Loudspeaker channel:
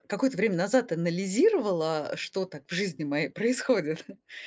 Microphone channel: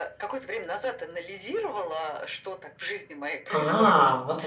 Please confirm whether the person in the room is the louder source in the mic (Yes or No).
Yes